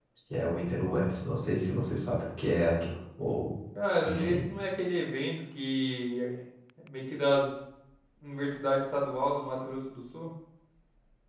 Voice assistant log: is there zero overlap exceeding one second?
Yes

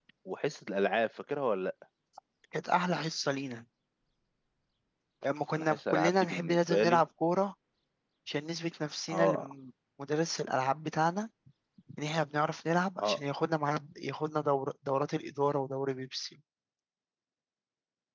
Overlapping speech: Yes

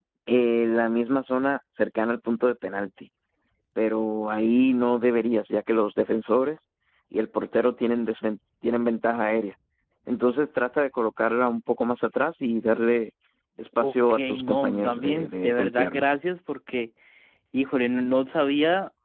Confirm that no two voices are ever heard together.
No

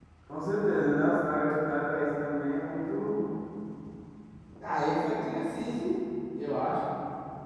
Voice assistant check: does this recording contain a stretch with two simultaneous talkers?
No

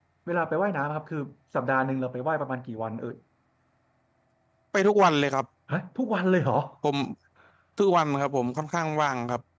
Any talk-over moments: No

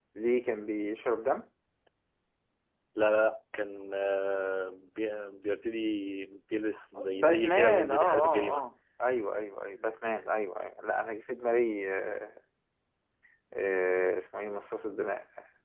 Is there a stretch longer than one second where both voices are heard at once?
Yes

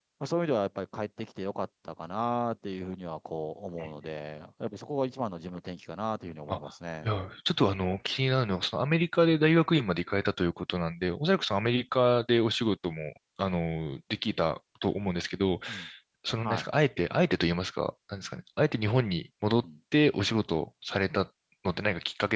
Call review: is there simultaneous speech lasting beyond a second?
No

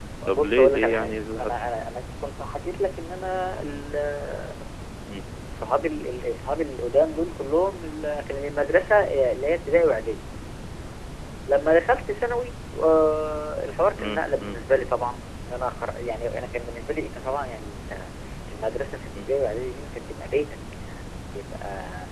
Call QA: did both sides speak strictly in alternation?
No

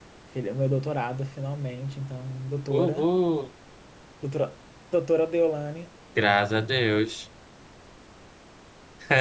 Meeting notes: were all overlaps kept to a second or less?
Yes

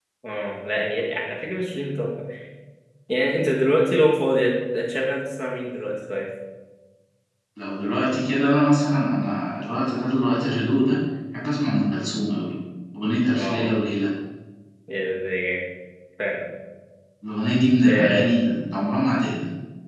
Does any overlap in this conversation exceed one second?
No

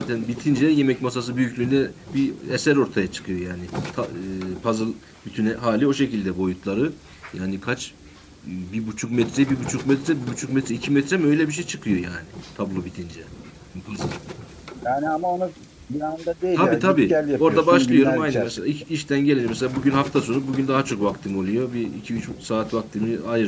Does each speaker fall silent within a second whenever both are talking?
No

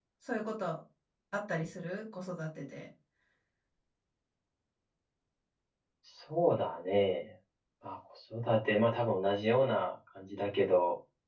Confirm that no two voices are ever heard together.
Yes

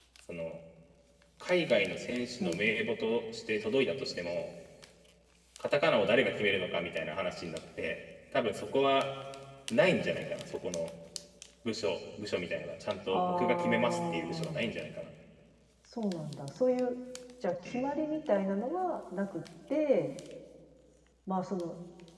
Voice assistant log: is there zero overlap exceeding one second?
No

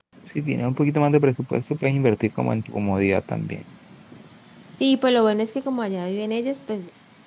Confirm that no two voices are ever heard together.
Yes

